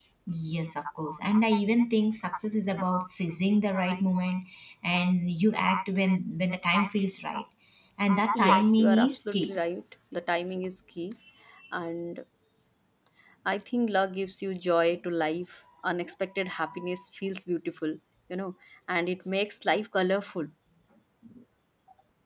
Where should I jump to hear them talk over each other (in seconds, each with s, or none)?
8.3 s